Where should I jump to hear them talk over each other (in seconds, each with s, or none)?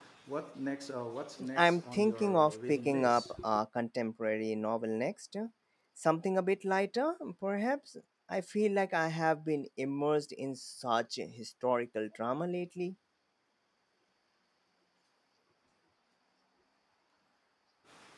1.4 s